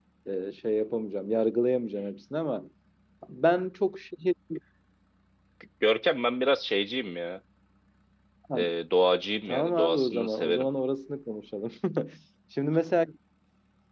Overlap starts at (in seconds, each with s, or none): 9.5 s